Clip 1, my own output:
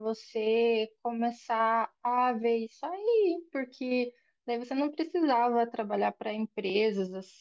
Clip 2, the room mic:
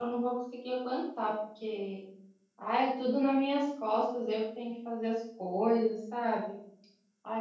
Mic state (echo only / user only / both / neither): user only